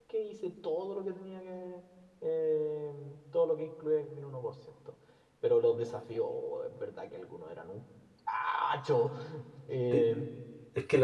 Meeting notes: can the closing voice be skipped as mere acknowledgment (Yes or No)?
No